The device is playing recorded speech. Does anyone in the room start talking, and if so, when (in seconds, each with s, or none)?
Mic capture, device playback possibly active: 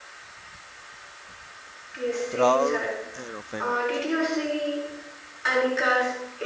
2.3 s